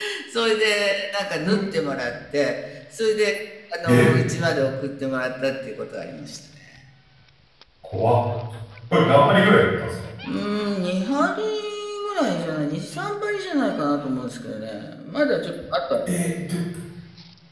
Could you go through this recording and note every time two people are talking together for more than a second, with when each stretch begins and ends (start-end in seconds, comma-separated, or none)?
none